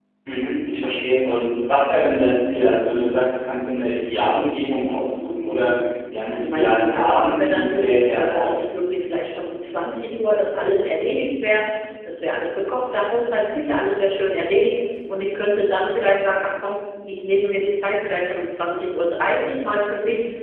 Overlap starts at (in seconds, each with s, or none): 6.3 s